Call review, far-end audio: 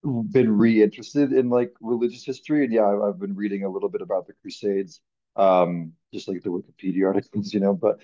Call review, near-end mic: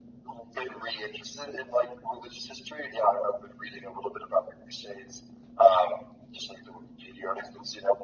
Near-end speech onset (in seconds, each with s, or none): none